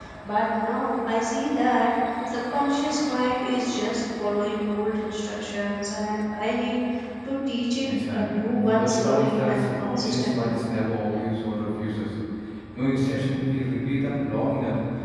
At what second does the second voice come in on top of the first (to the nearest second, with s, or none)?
8 s